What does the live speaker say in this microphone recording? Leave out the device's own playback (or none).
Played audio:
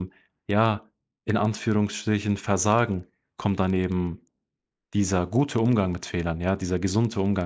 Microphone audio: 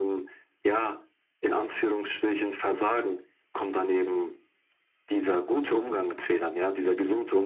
none